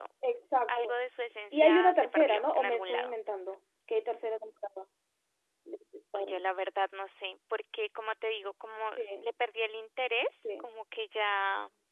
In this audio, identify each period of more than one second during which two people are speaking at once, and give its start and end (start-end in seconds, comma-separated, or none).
1.5-3.1